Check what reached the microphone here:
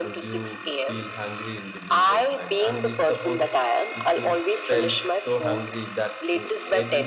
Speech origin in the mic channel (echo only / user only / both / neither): both